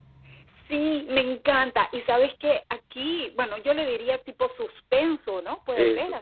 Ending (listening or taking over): listening